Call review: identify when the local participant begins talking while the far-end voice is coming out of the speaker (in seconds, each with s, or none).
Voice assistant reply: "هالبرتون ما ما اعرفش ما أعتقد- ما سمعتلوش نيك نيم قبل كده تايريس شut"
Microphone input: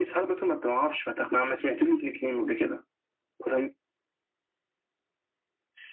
none